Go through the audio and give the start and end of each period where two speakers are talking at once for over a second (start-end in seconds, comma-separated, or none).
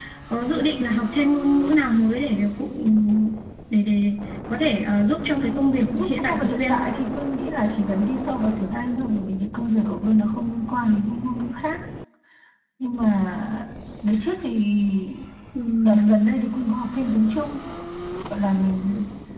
5.2-6.8